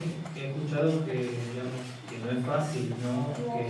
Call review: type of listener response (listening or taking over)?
listening